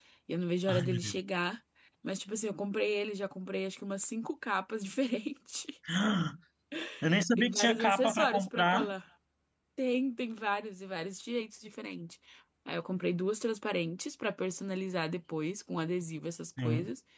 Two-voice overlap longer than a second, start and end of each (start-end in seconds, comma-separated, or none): 7.4-8.9